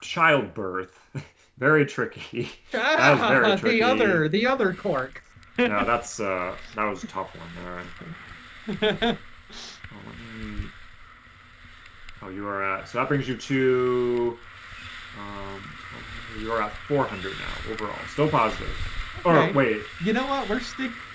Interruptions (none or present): present